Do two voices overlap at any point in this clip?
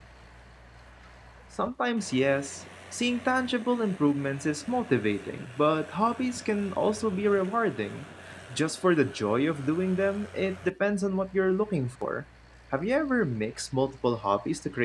No

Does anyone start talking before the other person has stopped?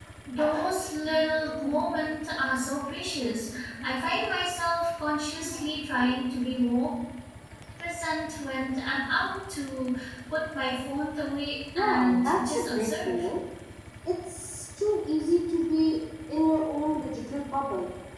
Yes, from 11.8 s

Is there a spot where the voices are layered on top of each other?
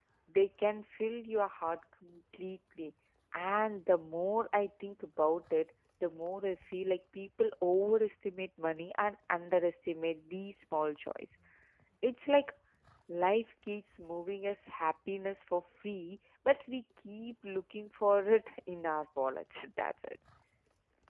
No

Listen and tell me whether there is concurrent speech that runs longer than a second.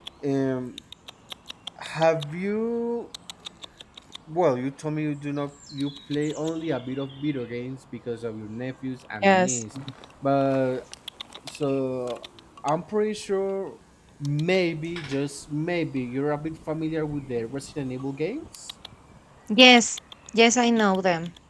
No

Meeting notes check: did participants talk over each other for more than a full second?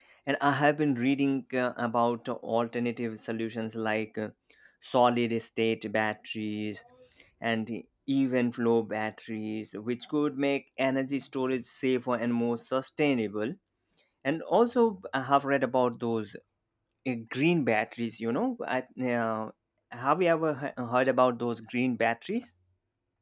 No

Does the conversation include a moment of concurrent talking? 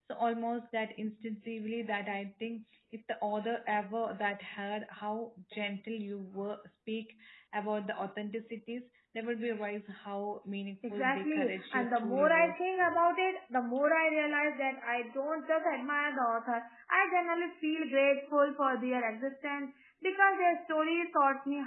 Yes, from 10.8 s

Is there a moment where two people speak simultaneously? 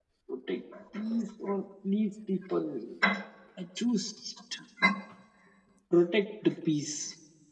No

